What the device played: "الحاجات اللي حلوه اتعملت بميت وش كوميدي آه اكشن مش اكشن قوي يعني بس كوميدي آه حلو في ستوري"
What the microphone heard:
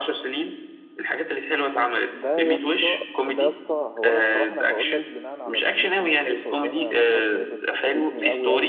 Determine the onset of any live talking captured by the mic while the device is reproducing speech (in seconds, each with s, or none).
2.1 s